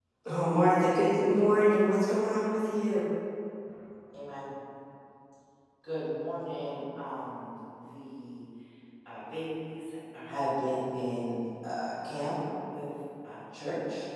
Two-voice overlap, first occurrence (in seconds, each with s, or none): none